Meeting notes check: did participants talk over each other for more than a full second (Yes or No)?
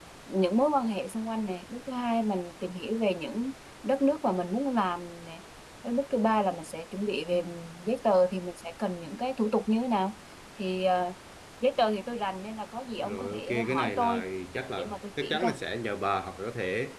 Yes